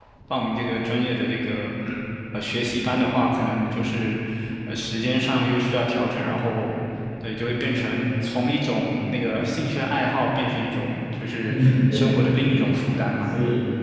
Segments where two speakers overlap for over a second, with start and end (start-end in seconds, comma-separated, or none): 11.5-13.3